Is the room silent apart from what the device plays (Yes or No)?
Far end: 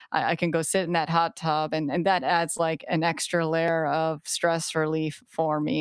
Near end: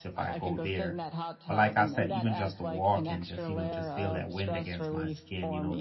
No